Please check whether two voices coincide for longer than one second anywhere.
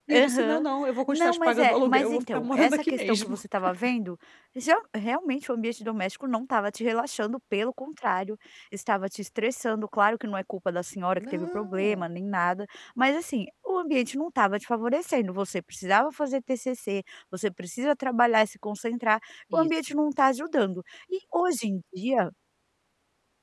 Yes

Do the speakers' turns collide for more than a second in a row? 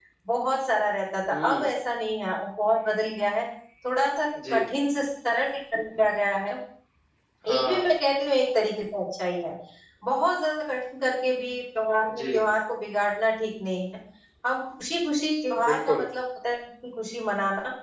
No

